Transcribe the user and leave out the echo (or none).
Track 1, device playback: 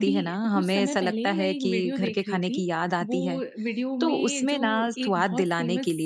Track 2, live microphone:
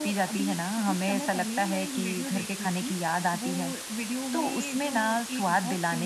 none